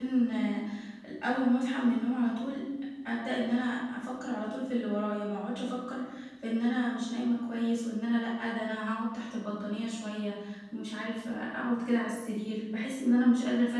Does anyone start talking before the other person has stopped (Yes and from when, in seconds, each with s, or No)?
No